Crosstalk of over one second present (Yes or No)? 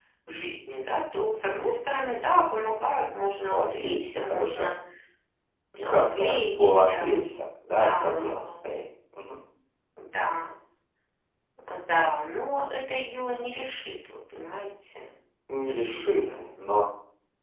Yes